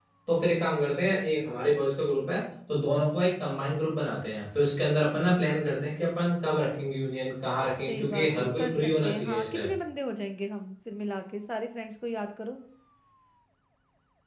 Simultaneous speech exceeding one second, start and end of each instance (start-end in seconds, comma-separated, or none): 7.9-9.7